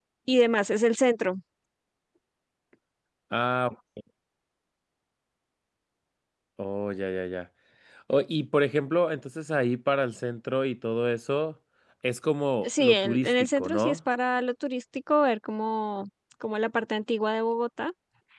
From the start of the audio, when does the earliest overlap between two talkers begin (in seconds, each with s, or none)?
12.6 s